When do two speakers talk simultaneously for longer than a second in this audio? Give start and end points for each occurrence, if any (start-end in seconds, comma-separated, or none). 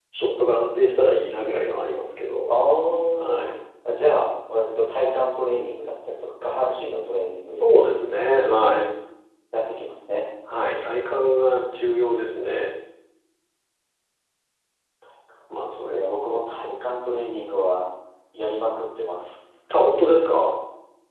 15.6-16.9